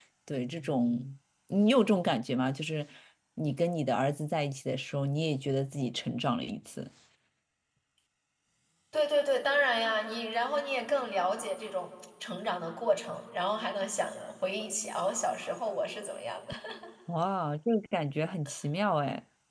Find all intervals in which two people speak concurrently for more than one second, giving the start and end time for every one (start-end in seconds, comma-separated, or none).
none